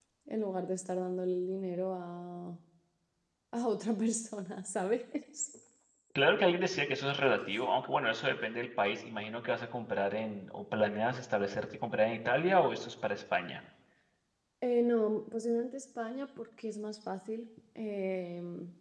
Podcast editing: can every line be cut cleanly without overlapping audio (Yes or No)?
Yes